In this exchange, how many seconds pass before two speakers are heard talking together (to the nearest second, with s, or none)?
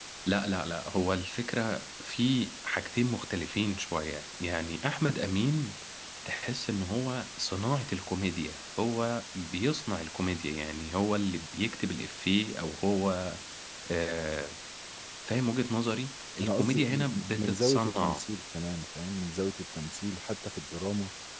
16 s